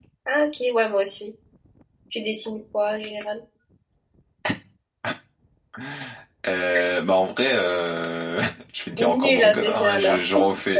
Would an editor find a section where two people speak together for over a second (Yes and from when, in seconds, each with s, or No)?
Yes, from 9.0 s